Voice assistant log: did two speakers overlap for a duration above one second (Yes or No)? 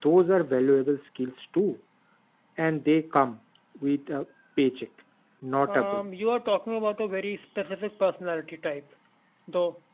No